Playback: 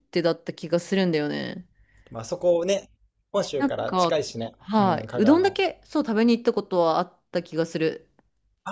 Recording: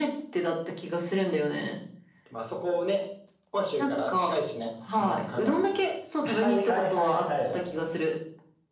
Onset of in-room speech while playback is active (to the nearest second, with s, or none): 6 s